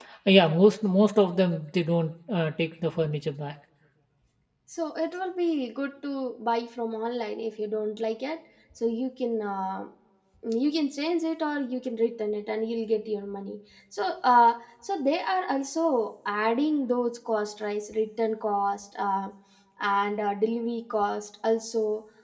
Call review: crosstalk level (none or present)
none